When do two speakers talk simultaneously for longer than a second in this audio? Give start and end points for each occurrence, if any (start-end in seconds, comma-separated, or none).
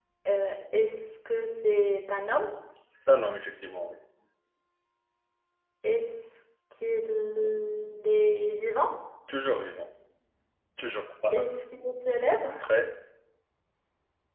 none